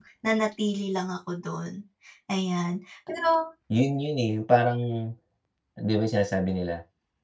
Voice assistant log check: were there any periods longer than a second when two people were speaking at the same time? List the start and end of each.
none

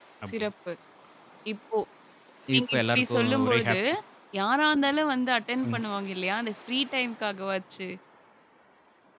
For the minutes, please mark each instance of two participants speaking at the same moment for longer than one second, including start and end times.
2.6-3.8

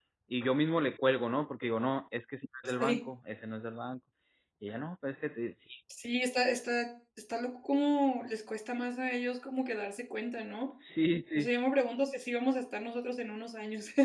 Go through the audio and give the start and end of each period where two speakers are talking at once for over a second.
none

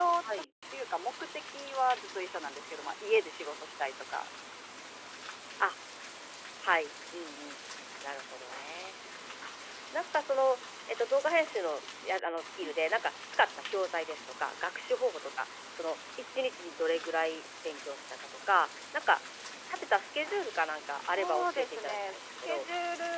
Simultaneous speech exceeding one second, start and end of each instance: 21.1-22.7

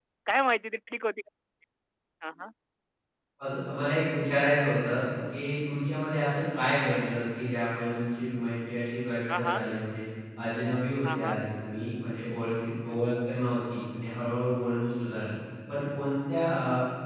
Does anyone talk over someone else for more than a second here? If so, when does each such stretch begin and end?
none

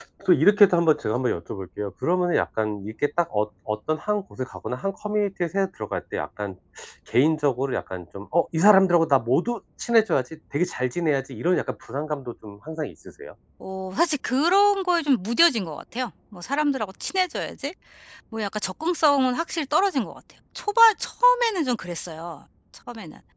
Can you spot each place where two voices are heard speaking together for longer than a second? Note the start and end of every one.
none

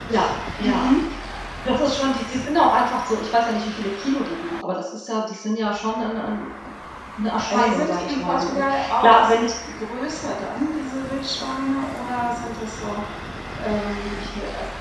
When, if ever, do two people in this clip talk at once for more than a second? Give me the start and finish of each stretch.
7.5-9.5

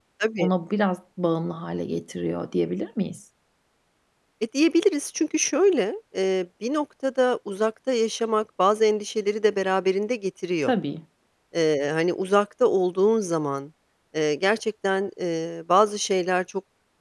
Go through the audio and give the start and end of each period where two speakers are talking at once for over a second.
none

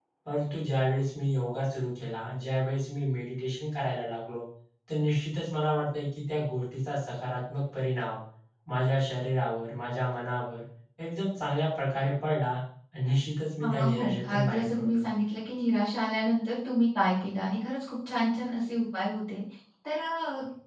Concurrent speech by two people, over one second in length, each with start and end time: 13.6-15.0

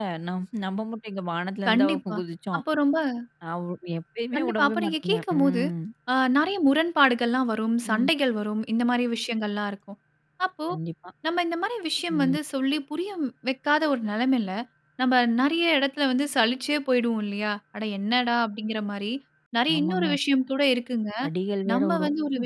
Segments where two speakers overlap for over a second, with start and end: 4.4-5.6

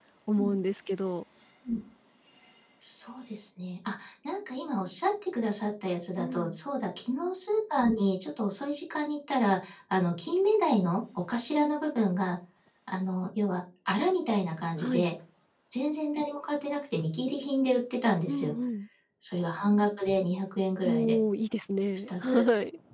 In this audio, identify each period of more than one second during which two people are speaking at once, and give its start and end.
none

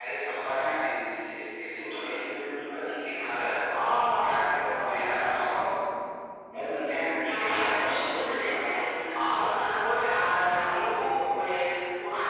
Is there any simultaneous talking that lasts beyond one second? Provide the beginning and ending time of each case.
7.3-8.8

